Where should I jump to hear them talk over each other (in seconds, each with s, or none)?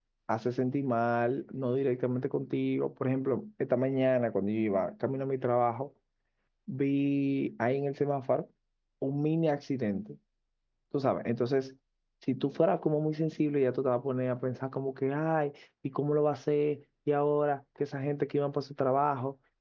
none